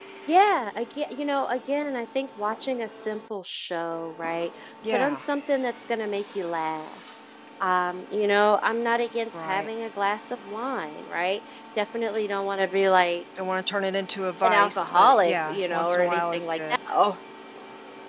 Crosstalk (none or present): present